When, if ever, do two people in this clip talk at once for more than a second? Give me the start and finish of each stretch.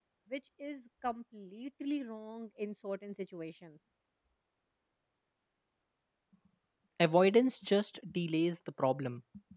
none

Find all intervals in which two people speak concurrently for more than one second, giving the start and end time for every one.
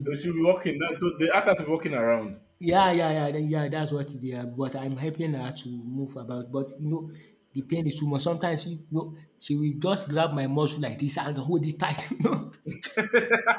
none

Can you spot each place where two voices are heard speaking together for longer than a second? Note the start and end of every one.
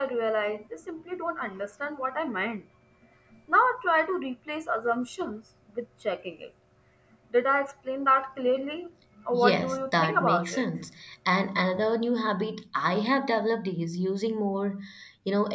9.3-10.7

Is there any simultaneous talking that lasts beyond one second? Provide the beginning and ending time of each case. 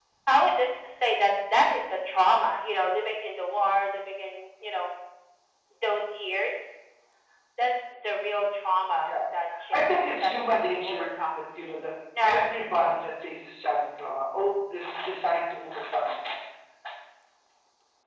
9.7-11.4

